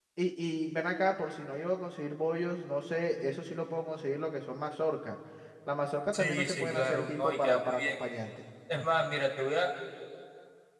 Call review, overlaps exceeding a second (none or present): present